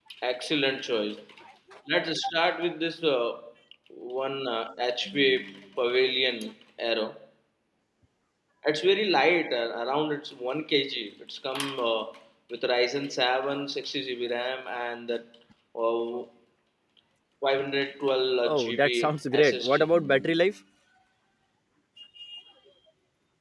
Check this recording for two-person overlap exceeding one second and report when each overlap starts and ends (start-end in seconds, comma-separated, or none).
18.4-19.9